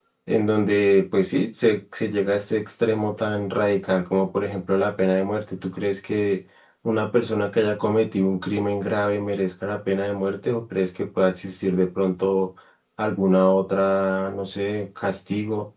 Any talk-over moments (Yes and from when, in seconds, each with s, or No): No